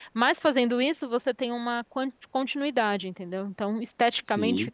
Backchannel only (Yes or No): No